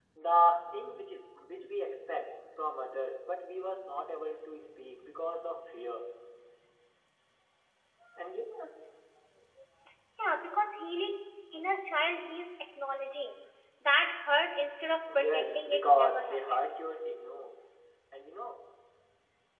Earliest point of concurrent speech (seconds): 15.1 s

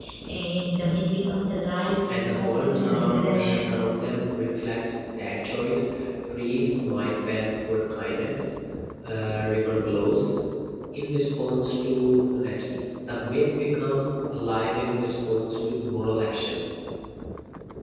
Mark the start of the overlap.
2.1 s

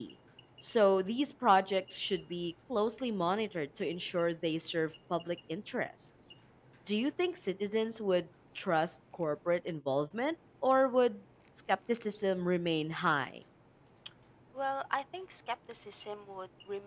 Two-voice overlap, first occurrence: none

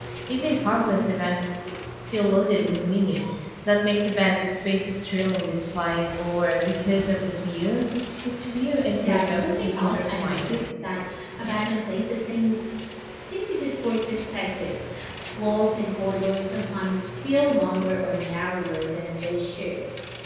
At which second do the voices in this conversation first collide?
9.1 s

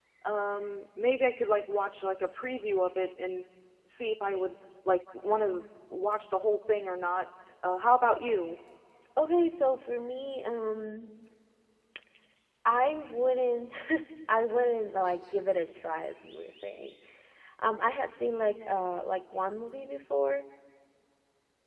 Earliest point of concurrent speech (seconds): none

